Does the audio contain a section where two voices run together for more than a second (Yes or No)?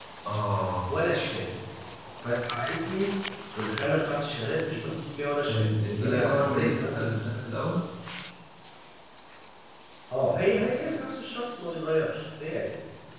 Yes